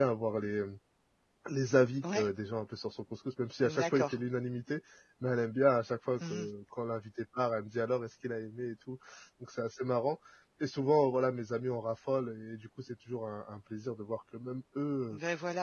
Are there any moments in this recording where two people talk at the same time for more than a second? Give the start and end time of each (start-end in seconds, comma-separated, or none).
none